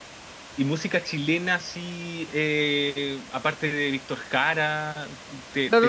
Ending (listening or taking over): taking over